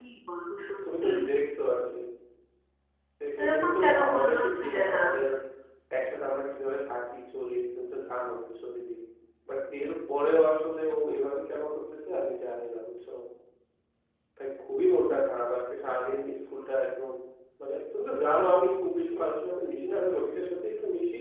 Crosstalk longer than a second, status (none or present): present